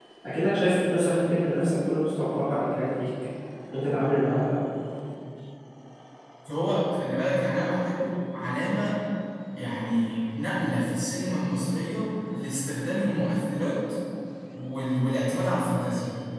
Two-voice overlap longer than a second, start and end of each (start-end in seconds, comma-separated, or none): none